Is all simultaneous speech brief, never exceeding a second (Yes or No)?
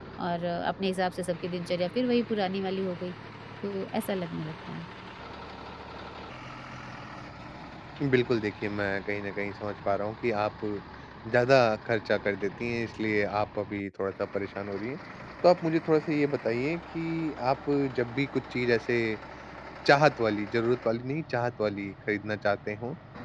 Yes